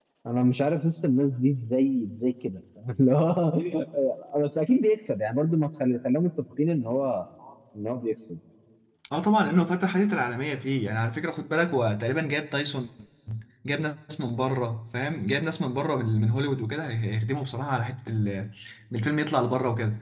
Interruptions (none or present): none